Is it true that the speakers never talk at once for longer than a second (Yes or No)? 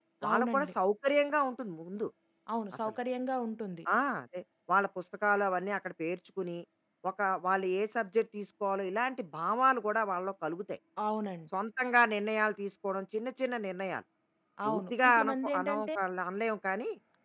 No